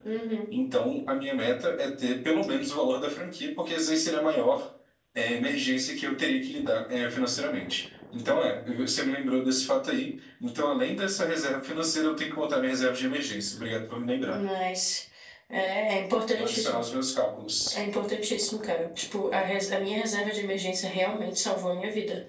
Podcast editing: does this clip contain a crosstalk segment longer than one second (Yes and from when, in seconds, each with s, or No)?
No